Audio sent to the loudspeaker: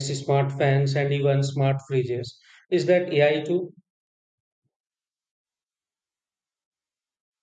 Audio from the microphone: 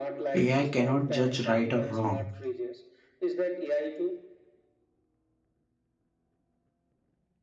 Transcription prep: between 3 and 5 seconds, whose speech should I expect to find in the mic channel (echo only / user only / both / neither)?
echo only